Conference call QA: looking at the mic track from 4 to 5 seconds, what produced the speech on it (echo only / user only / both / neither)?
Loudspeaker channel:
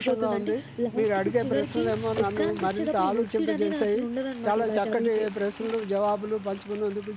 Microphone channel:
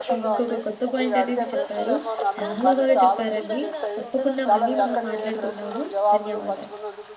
both